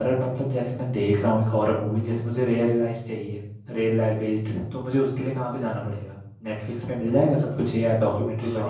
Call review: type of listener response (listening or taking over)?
taking over